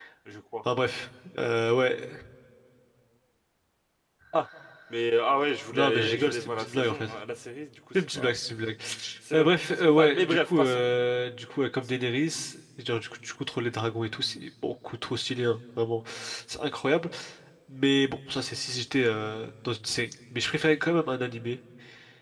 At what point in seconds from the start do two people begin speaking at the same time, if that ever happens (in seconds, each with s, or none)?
5.7 s